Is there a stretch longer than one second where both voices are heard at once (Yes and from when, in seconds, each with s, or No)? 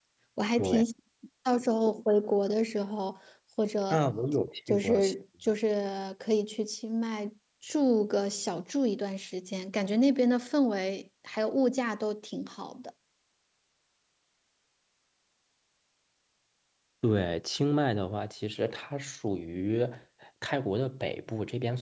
No